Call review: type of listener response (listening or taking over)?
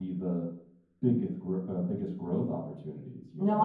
taking over